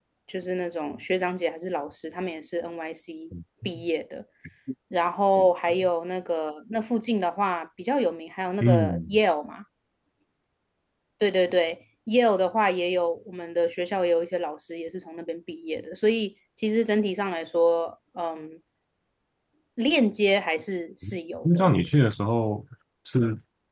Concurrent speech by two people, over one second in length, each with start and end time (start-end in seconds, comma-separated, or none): none